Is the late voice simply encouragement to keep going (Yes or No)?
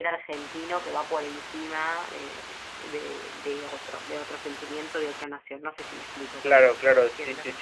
No